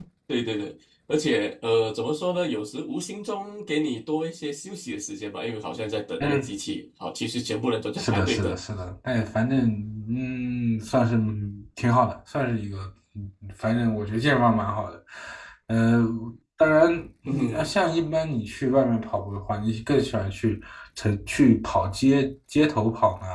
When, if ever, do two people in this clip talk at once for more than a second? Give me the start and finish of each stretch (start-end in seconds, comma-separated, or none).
none